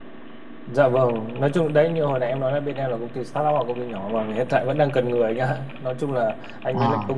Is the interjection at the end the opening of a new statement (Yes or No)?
No